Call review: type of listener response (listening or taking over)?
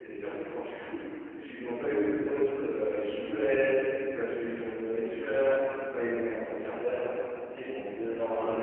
listening